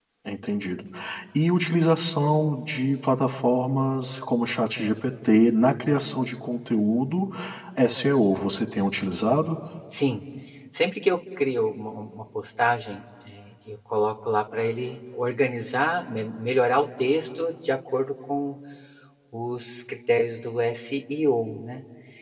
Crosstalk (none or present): none